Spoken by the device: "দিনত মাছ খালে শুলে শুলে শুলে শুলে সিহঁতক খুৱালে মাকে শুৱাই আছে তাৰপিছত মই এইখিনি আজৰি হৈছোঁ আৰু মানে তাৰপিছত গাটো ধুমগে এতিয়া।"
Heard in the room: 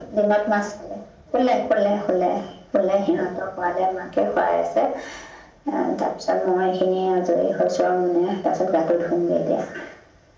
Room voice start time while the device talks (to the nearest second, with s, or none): none